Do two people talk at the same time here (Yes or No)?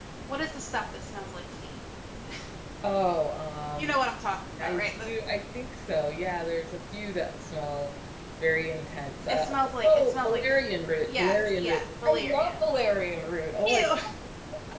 Yes